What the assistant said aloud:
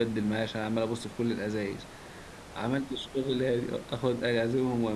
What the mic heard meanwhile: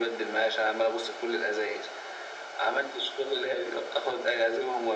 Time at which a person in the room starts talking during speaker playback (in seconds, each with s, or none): none